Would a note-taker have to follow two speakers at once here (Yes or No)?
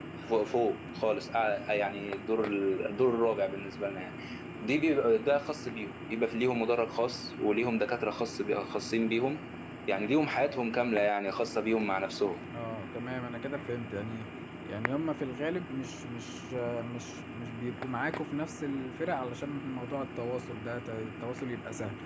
No